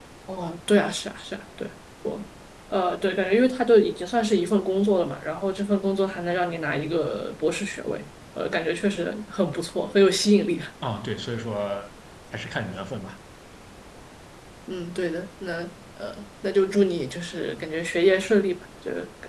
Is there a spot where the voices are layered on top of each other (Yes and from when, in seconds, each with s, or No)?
No